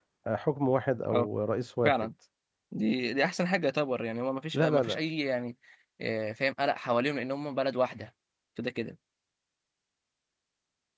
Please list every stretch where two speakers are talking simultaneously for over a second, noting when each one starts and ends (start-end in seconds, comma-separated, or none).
none